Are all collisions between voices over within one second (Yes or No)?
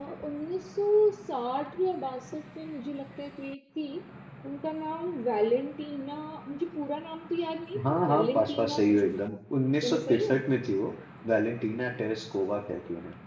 No